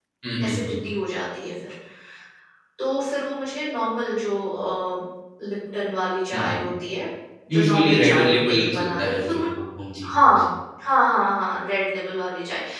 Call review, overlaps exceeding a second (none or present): present